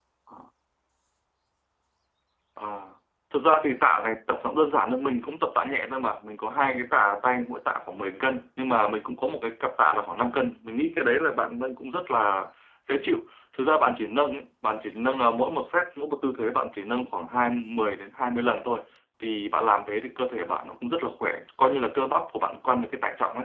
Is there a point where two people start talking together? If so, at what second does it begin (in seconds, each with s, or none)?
none